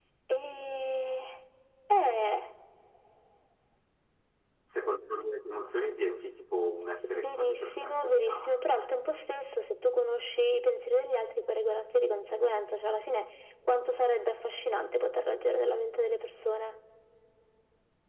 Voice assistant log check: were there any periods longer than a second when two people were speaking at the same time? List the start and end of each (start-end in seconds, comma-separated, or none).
7.1-8.6